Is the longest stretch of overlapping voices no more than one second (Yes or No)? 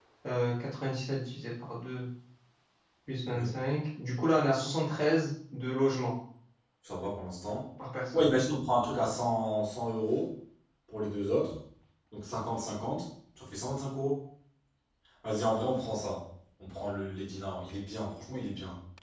Yes